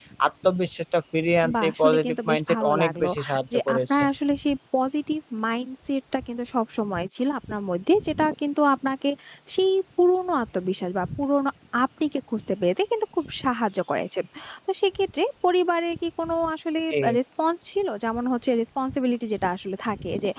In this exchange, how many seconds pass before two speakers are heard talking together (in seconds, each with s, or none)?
1.4 s